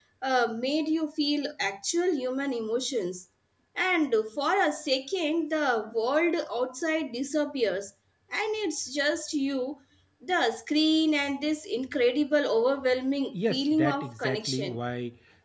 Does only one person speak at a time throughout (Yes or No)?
No